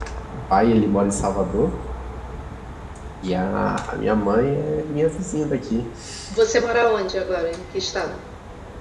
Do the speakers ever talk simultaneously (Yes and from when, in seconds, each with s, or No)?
No